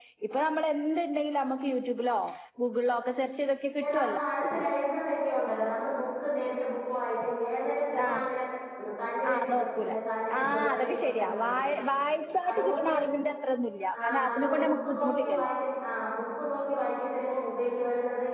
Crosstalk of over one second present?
Yes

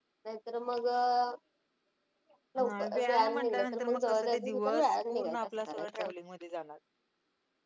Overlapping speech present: Yes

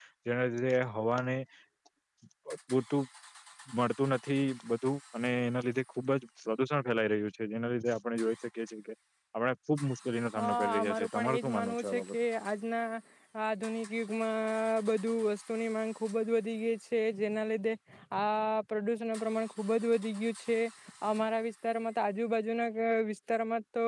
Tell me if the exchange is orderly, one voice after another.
No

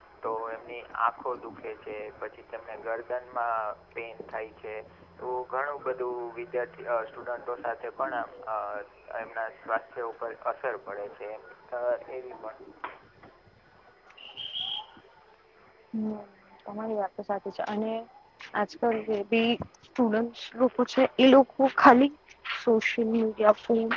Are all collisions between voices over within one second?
Yes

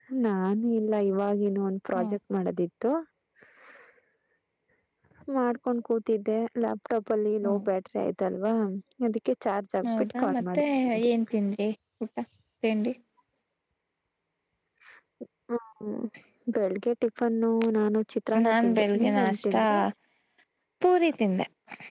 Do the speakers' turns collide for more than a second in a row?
Yes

